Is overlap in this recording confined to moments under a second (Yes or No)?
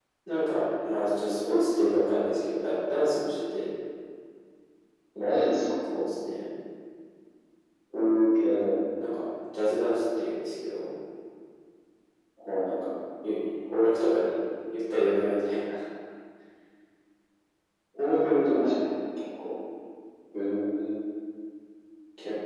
Yes